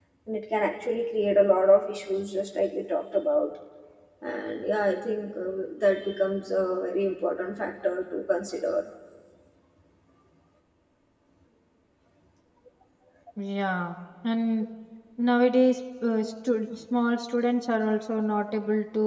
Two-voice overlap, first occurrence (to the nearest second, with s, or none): none